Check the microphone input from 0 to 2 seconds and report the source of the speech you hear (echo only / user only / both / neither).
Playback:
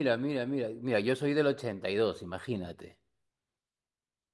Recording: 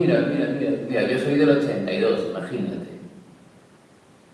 echo only